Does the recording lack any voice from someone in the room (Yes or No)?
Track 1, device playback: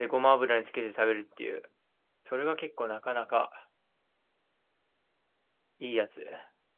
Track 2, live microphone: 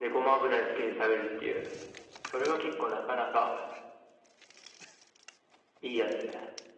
Yes